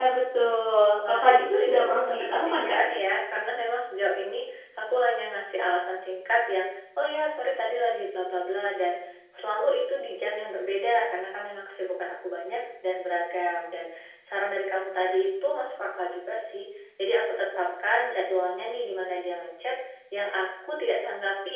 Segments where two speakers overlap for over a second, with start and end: 1.1-2.8

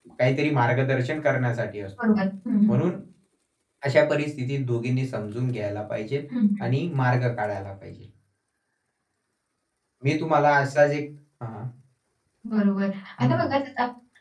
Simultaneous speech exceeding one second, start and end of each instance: none

